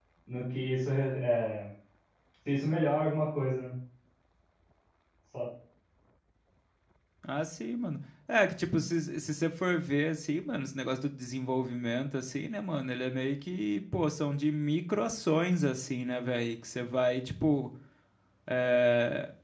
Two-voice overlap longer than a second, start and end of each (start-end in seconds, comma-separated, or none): none